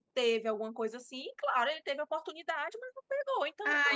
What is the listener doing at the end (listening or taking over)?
taking over